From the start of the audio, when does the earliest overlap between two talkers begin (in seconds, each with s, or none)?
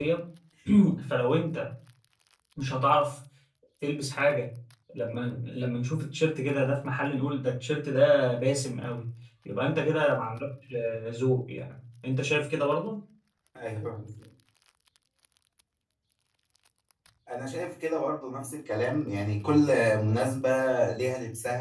none